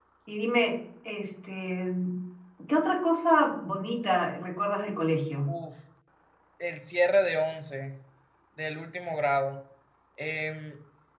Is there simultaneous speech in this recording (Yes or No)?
No